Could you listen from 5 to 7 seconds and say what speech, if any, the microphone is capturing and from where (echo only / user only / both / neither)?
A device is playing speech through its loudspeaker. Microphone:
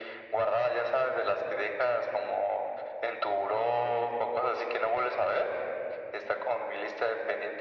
echo only